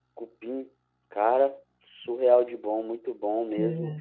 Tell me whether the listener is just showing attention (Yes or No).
No